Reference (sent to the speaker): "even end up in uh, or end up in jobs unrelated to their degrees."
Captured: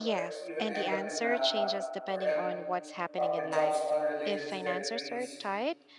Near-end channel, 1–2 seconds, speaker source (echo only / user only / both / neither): both